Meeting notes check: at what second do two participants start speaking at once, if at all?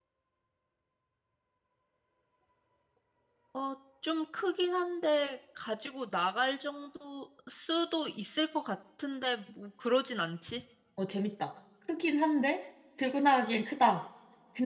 none

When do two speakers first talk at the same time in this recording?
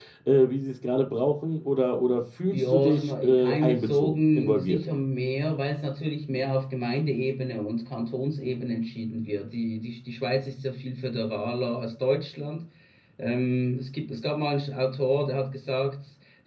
2.5 s

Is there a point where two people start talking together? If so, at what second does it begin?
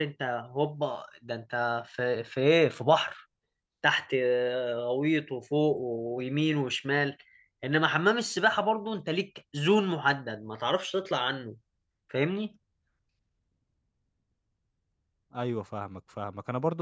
none

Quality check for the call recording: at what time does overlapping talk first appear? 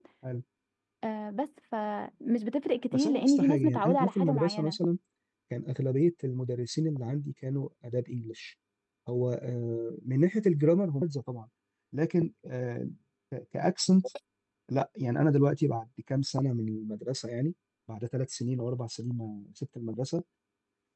2.9 s

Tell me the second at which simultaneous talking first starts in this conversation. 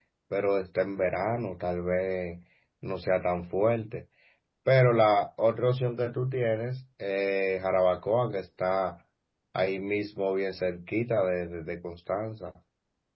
none

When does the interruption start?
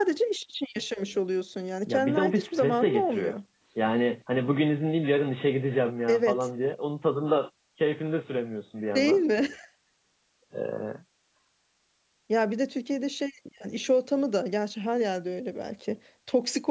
1.9 s

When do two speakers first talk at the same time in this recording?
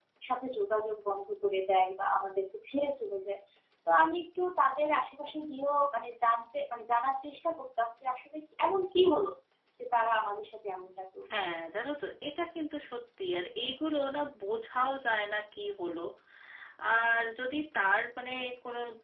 none

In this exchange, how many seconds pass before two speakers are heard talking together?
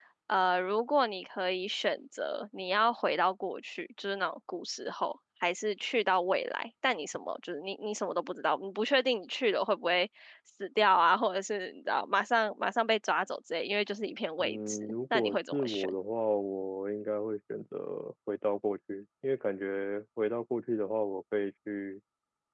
14.4 s

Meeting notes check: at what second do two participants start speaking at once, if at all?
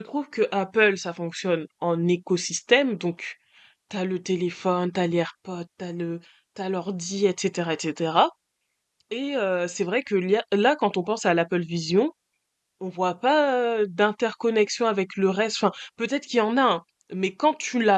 none

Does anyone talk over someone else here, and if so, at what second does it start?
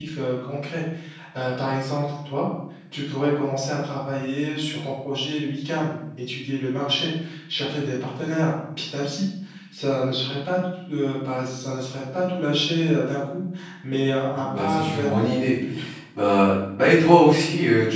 14.3 s

